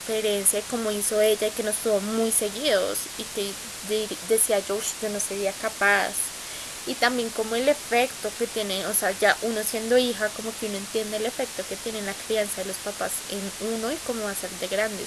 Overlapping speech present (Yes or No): No